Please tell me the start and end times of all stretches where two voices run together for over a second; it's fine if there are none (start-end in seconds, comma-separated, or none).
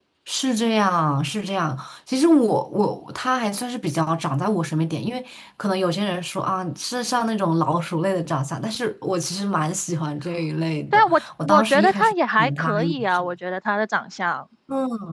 10.9-13.3